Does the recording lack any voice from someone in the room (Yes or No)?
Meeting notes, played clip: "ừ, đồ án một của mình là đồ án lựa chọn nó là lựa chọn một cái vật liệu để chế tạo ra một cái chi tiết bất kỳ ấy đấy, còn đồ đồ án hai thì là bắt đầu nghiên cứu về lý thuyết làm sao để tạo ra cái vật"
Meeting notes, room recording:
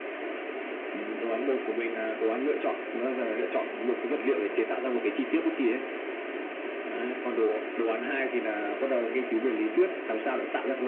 Yes